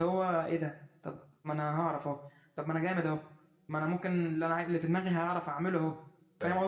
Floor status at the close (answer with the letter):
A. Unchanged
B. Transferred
B